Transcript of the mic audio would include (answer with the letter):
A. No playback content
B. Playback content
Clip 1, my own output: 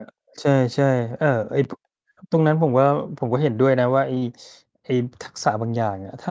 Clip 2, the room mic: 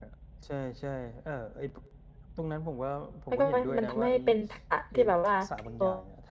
B